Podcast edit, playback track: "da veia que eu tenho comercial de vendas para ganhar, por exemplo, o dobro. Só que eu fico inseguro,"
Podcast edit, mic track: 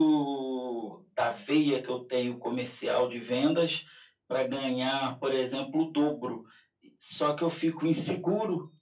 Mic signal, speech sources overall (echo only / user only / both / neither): echo only